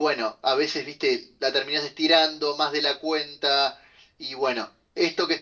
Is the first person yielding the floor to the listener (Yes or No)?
No